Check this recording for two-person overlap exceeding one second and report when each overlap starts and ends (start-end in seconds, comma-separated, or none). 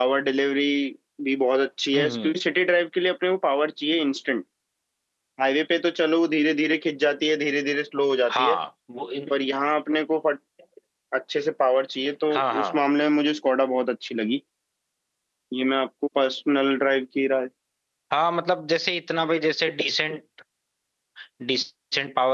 none